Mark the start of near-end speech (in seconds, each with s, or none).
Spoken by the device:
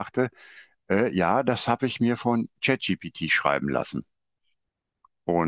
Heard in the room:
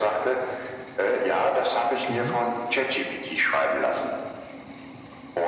2.1 s